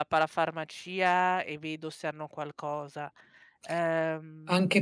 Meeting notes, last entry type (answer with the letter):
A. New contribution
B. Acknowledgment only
A